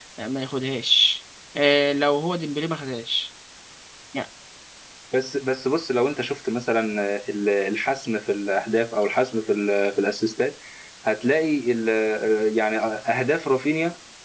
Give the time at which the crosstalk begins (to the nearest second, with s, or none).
none